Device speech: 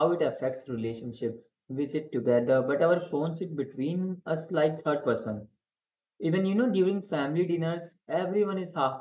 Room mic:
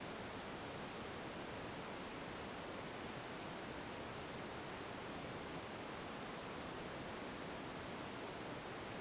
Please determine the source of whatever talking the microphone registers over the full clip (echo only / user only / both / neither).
neither